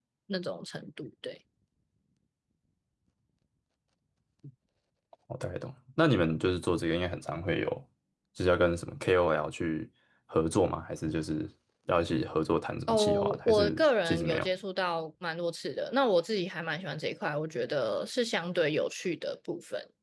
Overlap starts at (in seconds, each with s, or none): 12.9 s